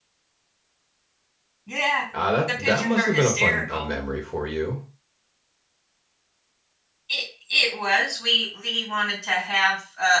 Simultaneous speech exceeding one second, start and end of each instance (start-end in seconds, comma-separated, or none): 2.5-3.9